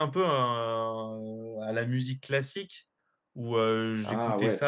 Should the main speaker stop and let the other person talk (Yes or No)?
No